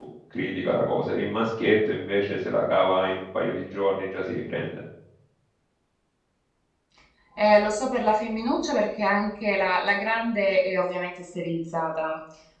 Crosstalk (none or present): none